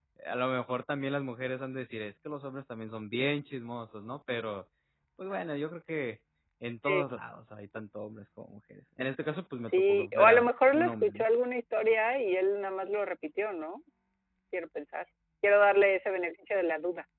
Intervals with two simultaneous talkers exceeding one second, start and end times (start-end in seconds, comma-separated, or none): 9.9-11.1